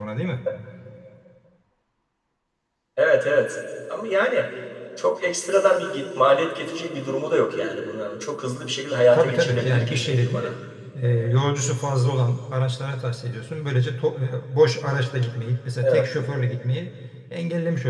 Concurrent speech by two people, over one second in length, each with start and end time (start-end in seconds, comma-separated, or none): 9.1-10.5